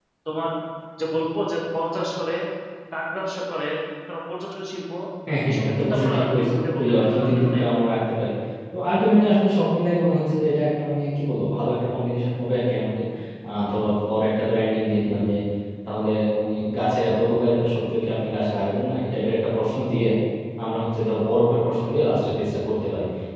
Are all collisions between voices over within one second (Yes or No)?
No